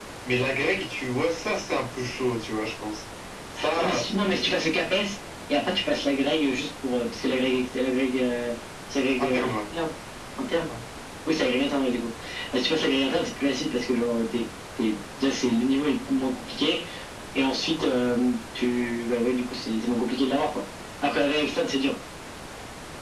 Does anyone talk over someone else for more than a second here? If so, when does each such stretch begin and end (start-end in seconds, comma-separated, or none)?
none